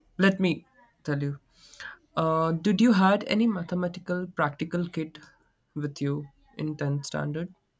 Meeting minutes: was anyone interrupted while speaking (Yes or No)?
No